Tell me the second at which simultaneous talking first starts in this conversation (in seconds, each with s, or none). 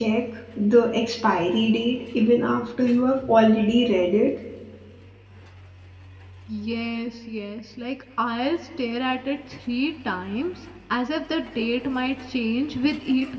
none